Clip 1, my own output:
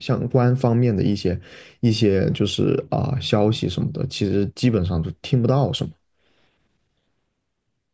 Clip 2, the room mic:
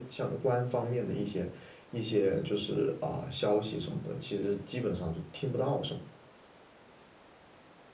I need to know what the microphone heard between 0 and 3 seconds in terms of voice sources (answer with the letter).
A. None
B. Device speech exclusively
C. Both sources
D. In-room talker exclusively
B